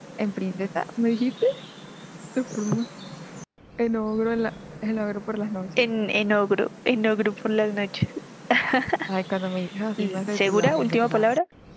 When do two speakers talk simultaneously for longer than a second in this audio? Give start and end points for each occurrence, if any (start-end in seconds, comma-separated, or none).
10.0-11.3